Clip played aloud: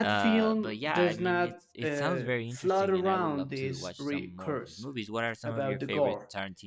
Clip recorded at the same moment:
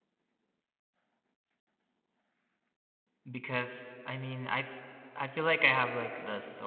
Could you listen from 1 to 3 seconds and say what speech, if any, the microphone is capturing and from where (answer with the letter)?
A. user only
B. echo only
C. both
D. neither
D